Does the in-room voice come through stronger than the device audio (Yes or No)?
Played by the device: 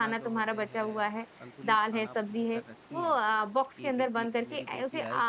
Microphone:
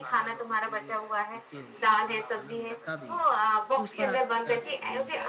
No